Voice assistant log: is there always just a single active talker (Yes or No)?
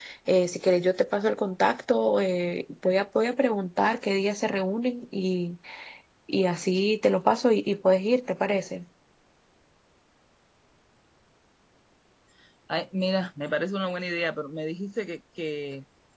Yes